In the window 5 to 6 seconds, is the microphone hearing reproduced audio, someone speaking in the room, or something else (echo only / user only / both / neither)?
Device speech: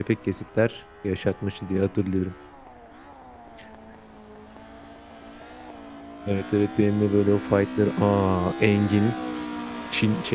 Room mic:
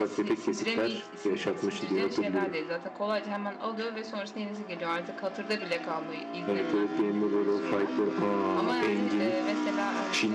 user only